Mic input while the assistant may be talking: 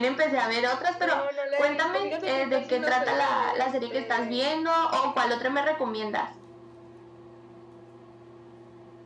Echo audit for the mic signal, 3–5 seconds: both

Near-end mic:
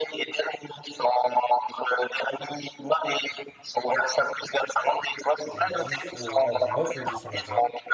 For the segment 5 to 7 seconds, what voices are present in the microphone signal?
both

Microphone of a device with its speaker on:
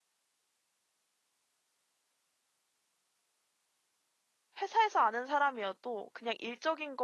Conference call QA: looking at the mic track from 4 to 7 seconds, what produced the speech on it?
user only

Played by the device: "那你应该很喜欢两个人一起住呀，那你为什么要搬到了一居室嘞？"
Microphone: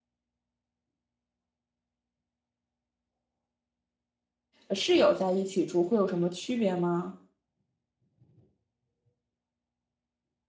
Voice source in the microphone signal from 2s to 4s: neither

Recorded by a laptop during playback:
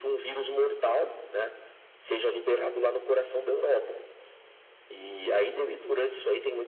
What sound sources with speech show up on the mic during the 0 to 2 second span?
echo only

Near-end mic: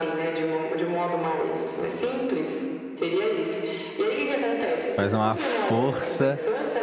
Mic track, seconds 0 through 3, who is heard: echo only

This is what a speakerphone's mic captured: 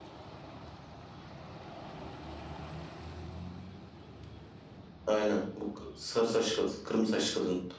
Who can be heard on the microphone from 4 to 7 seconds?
user only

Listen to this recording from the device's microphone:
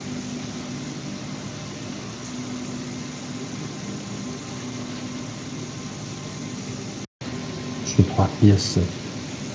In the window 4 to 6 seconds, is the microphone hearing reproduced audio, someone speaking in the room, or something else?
neither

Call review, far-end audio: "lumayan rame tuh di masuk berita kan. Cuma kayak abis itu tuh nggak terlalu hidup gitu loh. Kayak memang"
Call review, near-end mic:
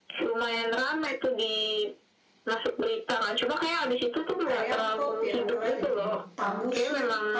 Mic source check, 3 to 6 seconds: both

